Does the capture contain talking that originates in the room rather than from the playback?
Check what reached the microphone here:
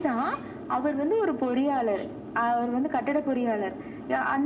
No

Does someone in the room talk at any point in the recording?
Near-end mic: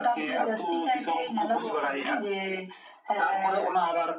No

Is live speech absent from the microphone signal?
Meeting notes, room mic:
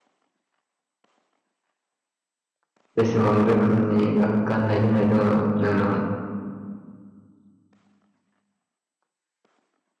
No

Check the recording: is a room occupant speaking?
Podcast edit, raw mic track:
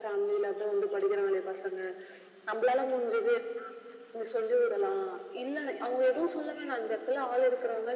No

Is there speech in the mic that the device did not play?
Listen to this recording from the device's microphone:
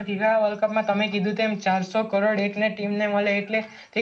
Yes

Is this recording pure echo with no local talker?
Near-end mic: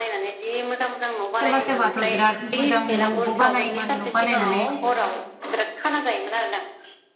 No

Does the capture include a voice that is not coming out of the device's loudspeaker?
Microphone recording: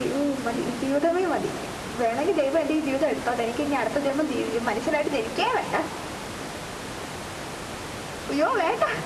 No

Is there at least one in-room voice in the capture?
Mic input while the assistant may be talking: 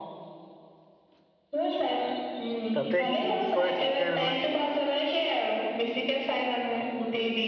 Yes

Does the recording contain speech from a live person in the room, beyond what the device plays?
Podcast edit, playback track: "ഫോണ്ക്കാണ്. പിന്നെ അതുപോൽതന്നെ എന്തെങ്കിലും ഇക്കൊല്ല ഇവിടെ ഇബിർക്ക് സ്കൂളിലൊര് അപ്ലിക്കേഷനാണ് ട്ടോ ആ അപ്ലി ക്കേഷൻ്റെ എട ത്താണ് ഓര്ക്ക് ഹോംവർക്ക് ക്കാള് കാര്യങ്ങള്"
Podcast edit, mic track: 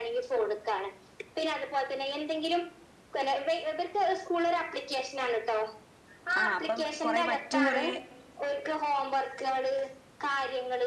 Yes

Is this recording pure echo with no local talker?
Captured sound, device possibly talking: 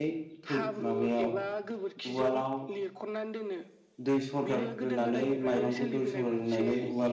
No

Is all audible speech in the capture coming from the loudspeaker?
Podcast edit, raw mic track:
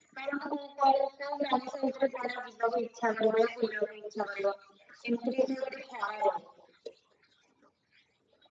Yes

